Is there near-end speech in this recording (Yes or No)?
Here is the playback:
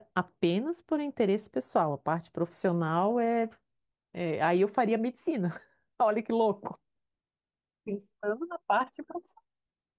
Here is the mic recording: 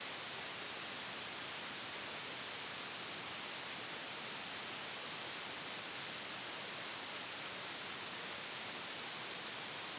No